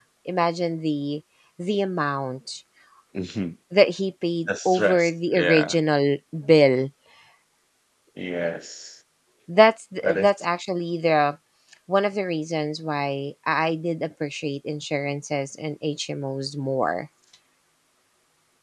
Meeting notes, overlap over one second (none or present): present